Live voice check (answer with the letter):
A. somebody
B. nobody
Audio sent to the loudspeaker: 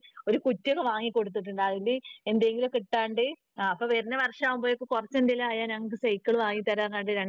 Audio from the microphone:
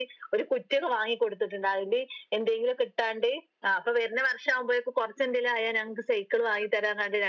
B